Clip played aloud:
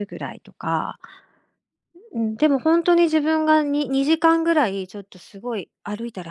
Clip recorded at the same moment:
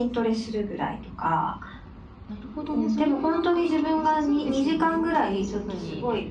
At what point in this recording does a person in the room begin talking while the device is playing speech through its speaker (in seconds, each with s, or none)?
2.3 s